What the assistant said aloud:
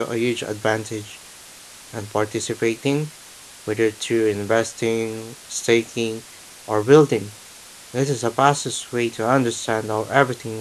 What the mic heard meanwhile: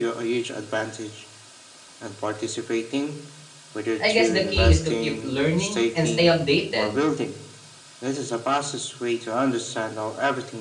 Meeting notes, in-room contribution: present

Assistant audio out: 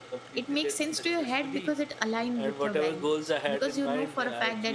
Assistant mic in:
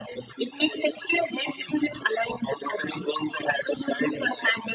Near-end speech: none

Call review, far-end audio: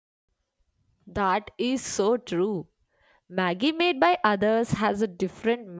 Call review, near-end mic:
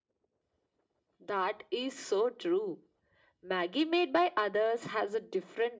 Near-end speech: none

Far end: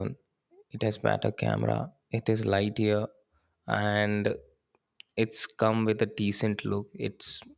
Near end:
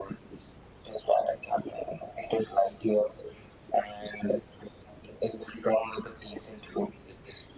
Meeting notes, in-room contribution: none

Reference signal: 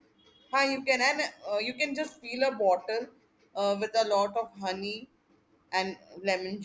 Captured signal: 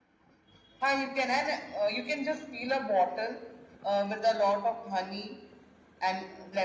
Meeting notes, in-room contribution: none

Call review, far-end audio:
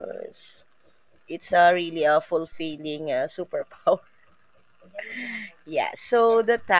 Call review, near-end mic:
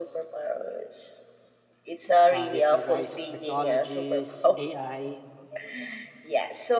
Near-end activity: present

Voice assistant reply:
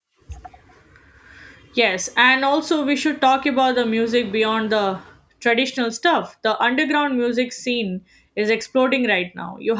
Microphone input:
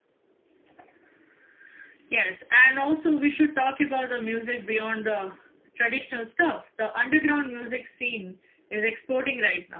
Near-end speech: none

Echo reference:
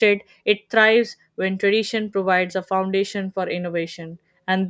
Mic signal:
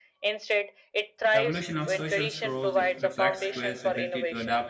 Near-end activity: present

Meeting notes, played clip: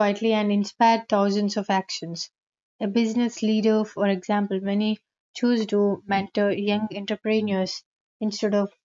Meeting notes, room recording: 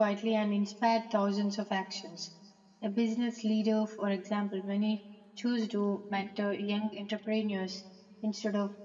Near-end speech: none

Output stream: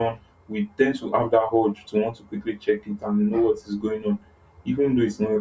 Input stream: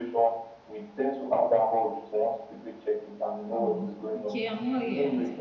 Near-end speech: present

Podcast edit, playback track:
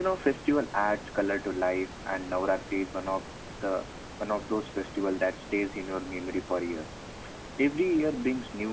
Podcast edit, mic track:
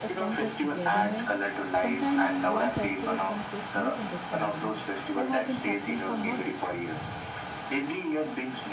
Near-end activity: present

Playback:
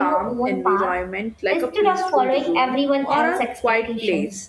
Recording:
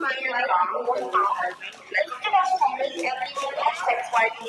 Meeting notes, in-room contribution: none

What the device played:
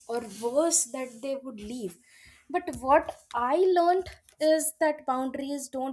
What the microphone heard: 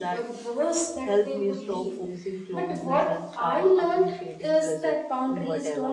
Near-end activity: present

